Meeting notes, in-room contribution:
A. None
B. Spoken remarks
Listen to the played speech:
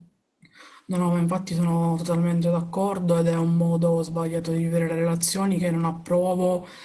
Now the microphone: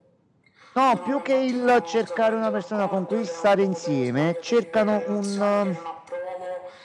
B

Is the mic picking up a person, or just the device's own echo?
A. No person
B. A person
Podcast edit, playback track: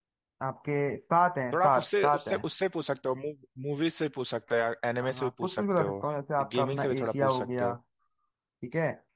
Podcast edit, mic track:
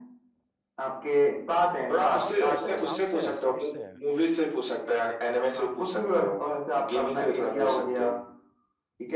B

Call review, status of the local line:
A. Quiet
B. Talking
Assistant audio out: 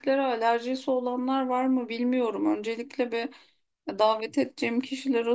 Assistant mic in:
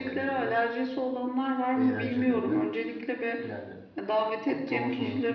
B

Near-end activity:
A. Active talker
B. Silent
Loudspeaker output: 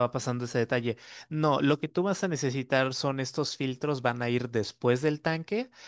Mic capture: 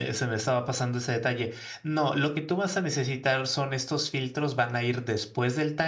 B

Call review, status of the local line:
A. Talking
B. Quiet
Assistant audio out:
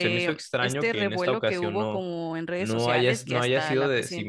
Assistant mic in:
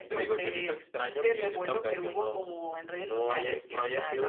B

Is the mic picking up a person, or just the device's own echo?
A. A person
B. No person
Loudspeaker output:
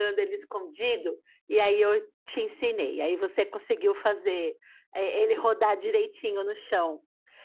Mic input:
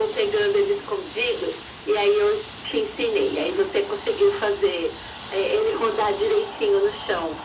B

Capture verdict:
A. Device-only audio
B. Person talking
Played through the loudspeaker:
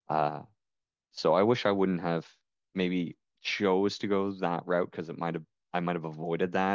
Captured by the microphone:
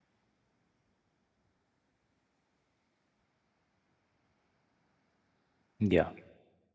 B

